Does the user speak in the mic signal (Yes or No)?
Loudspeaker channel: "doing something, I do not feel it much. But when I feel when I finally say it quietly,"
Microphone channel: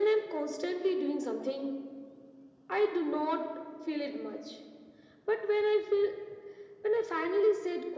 No